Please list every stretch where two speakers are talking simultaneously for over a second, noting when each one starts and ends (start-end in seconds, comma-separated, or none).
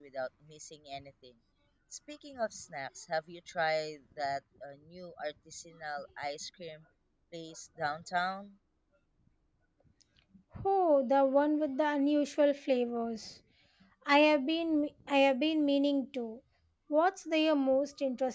none